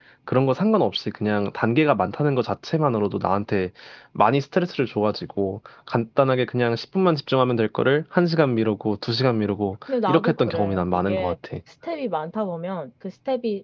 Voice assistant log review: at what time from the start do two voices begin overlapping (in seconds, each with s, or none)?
9.9 s